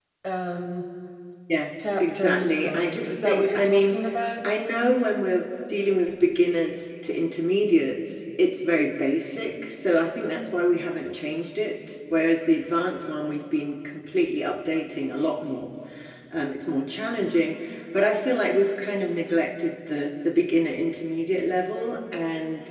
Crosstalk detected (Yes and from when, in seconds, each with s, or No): Yes, from 2.0 s